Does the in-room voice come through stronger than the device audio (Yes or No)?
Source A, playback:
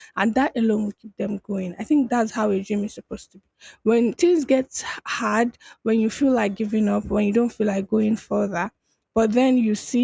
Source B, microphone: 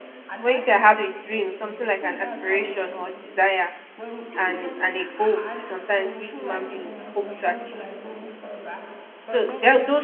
Yes